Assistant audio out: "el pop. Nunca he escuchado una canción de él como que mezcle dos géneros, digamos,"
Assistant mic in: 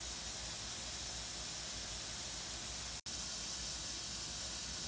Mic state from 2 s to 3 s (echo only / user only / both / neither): neither